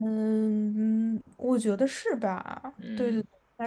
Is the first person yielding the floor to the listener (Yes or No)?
Yes